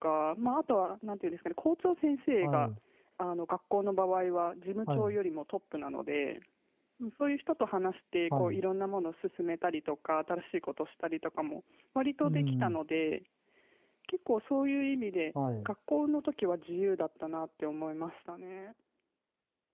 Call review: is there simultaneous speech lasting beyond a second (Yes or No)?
No